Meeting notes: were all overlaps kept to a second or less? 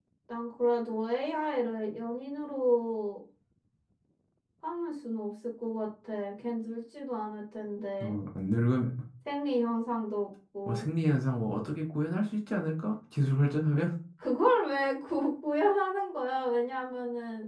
Yes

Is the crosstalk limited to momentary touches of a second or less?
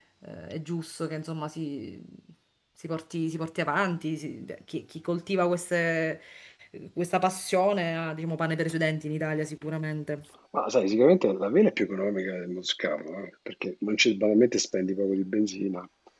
Yes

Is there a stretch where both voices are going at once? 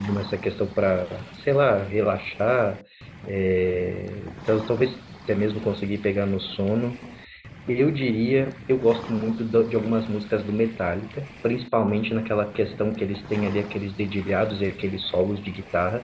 No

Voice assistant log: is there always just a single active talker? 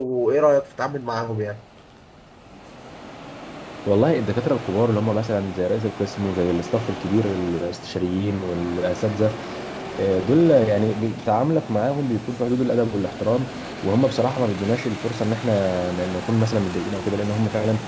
Yes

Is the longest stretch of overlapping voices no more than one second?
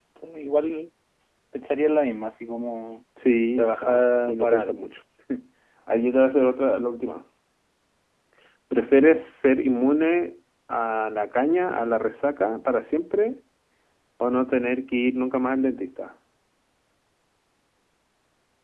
No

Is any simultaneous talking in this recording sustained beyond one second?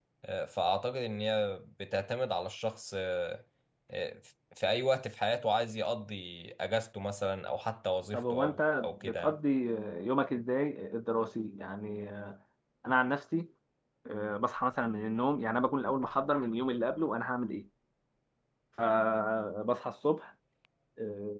Yes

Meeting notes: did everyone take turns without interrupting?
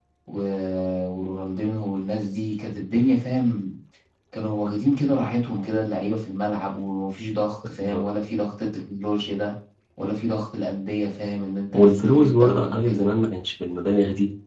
No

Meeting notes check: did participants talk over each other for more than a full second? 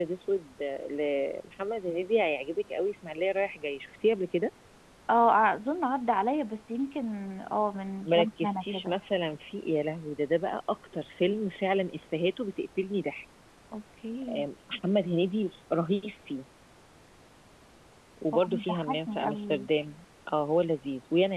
Yes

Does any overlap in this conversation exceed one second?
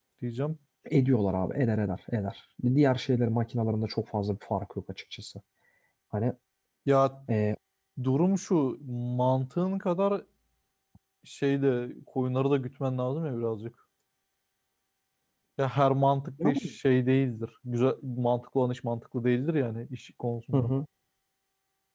No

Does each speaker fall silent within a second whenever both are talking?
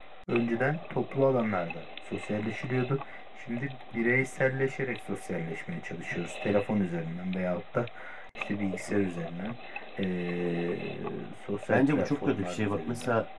No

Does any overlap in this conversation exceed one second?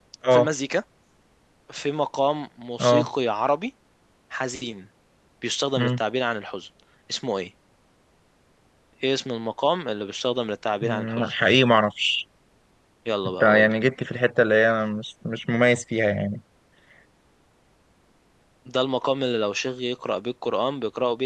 No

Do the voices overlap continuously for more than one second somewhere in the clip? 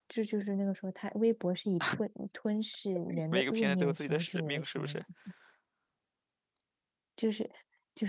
Yes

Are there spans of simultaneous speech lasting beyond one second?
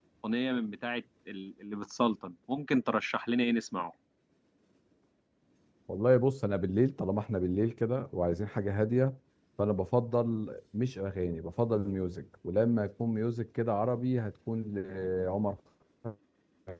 No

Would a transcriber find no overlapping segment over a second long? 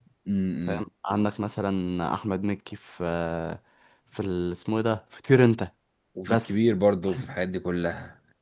Yes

